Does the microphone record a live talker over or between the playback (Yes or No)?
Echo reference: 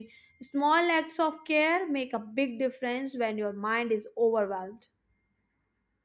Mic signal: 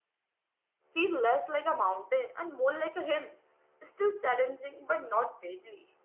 Yes